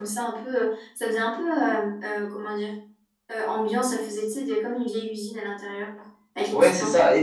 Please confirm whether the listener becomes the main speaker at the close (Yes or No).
Yes